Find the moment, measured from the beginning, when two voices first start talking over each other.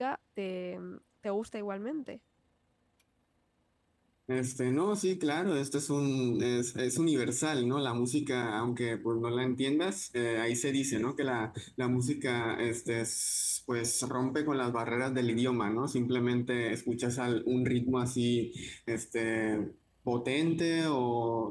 none

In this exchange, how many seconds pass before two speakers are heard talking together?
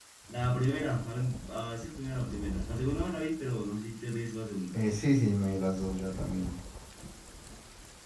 none

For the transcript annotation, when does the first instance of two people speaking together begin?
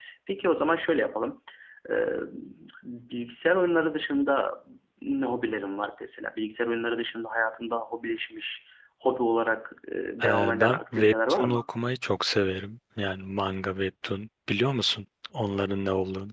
10.2 s

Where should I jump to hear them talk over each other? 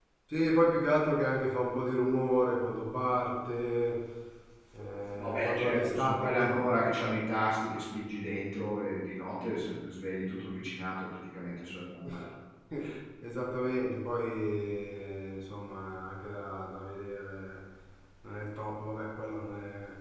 5.1 s

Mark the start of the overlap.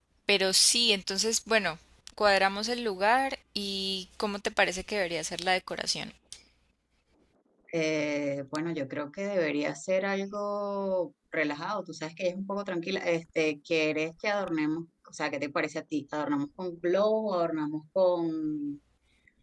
none

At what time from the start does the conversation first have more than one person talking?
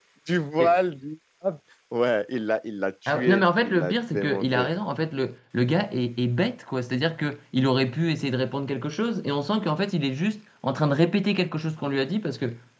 3.1 s

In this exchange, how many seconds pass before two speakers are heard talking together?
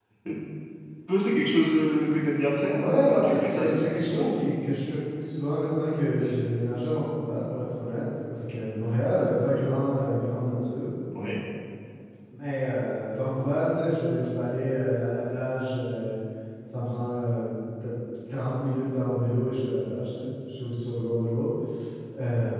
2.7 s

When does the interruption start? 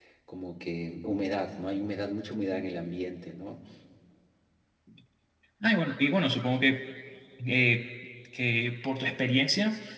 none

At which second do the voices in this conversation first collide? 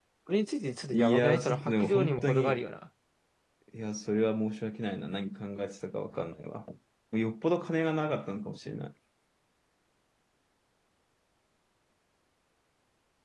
0.9 s

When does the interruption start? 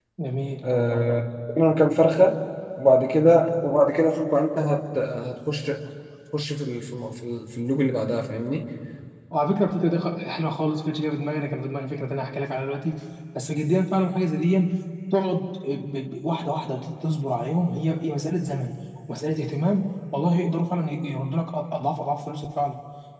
none

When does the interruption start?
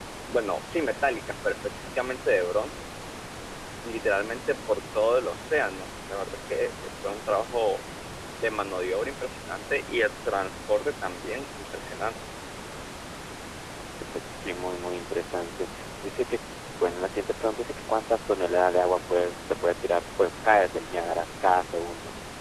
none

